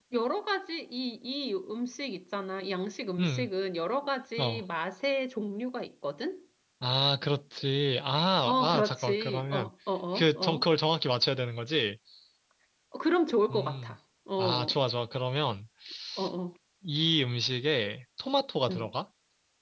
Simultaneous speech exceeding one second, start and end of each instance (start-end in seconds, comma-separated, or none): 8.4-9.7